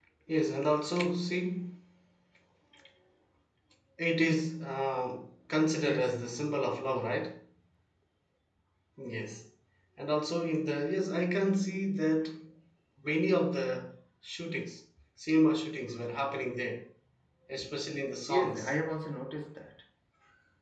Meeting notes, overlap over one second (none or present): none